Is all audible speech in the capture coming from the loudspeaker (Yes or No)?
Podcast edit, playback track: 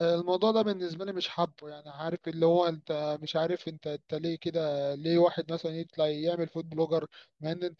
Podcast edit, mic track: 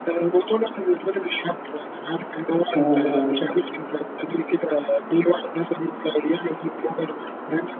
No